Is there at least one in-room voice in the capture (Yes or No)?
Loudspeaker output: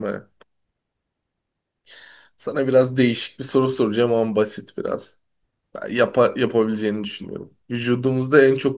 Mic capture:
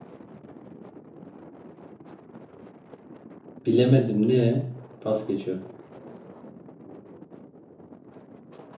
Yes